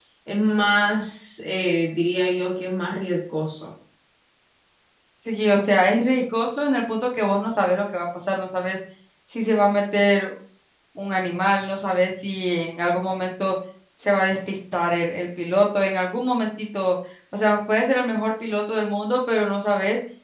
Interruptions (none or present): none